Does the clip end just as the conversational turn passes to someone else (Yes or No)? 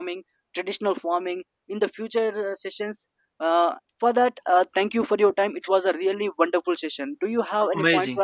Yes